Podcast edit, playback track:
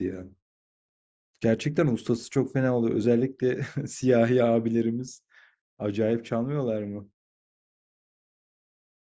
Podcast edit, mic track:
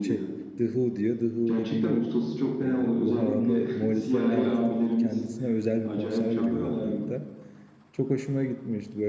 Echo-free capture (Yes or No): No